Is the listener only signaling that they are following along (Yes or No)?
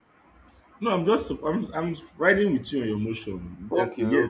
No